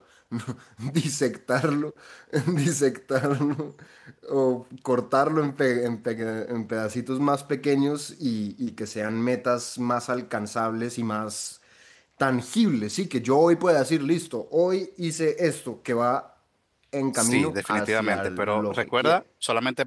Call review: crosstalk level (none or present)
present